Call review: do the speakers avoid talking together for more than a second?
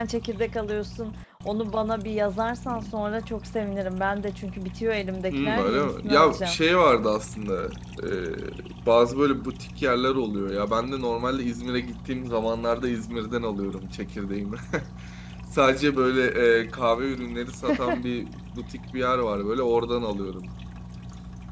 No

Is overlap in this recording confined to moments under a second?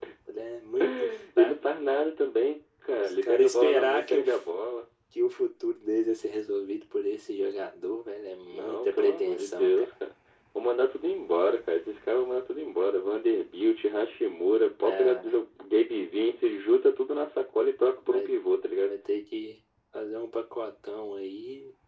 No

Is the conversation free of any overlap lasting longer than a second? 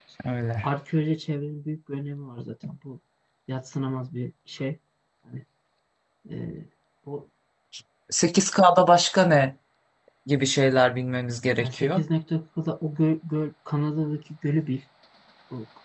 Yes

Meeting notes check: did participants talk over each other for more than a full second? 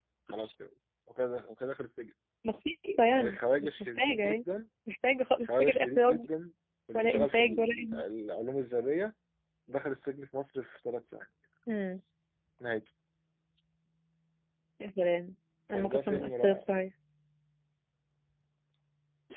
Yes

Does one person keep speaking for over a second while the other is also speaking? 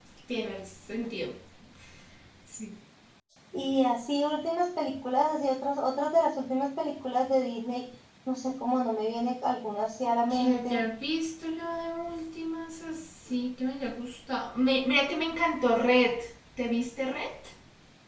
No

